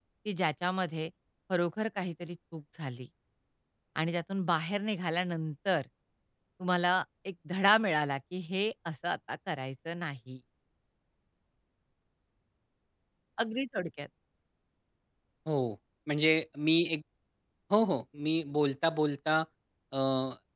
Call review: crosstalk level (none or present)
none